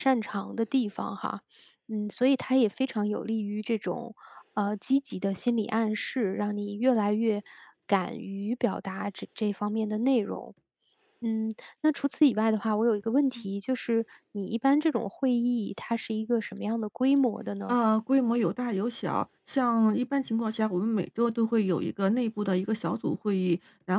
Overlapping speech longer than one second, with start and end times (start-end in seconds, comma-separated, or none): none